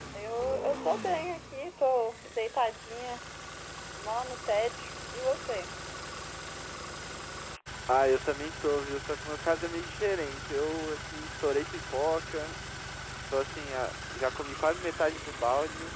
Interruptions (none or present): none